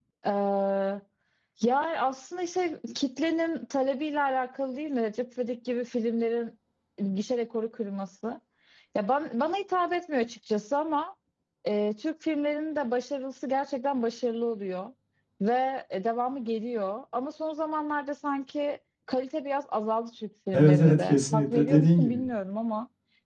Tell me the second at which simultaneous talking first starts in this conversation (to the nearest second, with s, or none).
21 s